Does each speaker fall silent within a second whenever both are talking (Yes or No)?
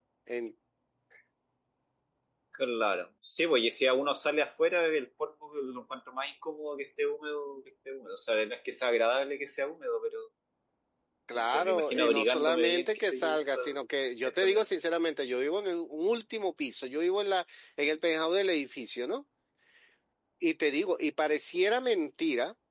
No